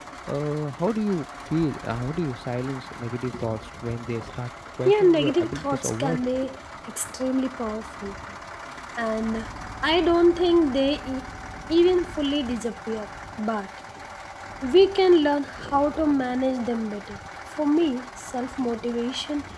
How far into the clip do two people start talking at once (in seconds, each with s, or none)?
4.8 s